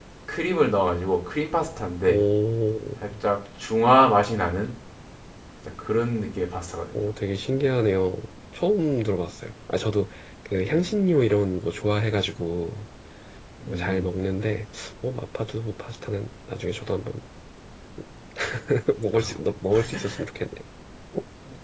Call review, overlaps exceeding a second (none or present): none